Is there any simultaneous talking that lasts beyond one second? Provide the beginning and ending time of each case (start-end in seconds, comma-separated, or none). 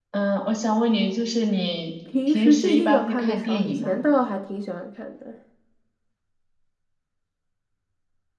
2.3-4.0